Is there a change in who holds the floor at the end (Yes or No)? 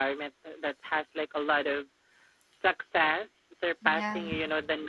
No